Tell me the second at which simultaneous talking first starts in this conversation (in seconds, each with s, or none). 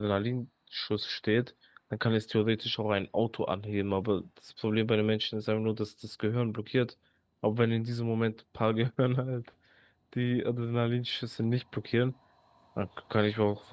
none